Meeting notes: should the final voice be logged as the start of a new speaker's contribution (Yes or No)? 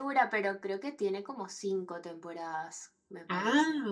Yes